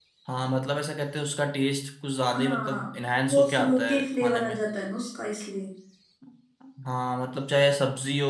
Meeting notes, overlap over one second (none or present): present